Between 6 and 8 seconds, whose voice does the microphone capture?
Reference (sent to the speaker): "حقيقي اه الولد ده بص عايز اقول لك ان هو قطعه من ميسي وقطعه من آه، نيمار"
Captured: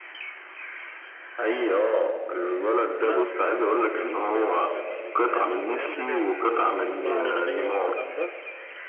both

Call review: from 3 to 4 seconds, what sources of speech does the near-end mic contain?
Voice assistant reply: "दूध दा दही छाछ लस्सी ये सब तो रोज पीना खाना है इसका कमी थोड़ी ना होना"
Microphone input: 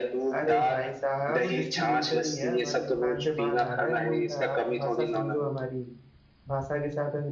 both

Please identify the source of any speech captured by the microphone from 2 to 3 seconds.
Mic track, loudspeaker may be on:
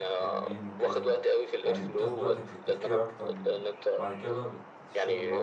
both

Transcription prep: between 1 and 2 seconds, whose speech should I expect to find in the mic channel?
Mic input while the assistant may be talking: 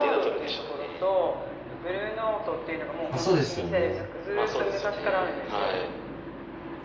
echo only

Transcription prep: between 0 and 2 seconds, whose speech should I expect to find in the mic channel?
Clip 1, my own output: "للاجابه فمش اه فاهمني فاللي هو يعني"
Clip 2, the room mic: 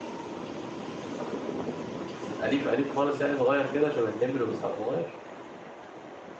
neither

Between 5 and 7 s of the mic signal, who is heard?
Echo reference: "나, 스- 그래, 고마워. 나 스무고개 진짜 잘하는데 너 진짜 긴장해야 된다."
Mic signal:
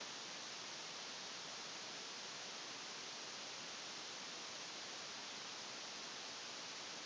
neither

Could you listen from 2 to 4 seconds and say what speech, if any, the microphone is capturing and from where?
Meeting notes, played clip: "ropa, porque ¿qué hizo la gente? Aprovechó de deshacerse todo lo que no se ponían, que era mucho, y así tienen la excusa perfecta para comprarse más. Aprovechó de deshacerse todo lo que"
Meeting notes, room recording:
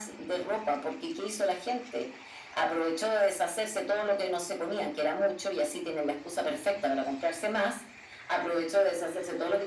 echo only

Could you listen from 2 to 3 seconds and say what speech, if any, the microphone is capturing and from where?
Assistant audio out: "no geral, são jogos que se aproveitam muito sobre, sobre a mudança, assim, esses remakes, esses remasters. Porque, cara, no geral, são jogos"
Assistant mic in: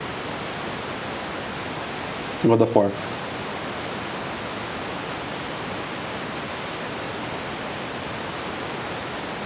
user only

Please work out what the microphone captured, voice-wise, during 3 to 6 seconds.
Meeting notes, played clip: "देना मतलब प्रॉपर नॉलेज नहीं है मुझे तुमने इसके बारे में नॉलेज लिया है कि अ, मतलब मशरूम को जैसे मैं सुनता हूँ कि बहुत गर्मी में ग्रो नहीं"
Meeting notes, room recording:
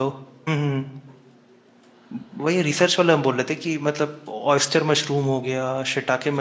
user only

